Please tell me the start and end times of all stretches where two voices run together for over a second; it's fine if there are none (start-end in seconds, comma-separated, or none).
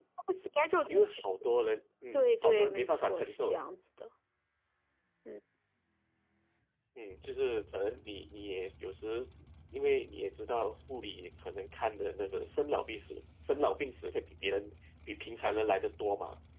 2.1-3.6